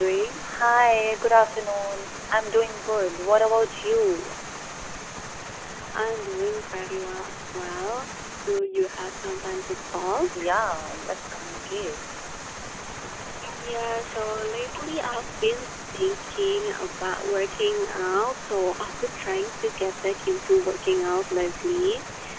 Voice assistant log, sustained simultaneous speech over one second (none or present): none